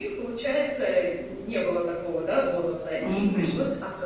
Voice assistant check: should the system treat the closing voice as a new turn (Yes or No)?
No